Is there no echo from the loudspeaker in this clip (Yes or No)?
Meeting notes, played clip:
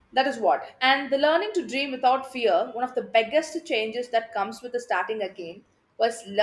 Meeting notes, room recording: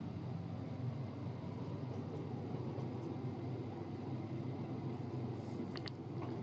Yes